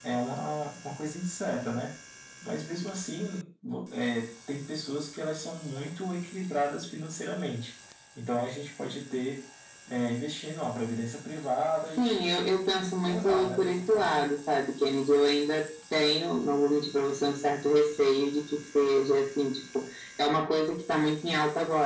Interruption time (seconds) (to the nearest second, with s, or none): 12 s